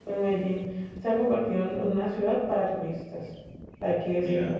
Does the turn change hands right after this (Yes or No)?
No